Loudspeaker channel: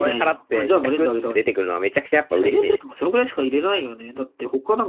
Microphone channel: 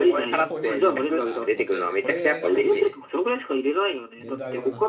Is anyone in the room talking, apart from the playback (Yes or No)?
Yes